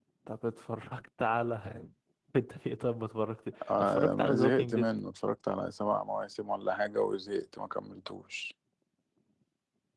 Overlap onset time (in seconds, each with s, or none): 3.6 s